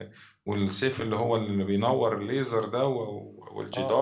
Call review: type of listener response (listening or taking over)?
taking over